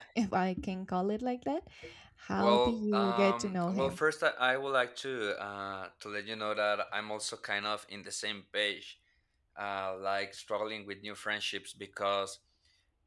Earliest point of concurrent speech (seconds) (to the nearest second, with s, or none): 2 s